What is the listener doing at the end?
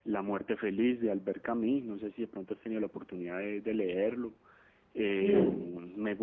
listening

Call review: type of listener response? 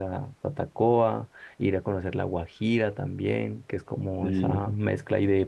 listening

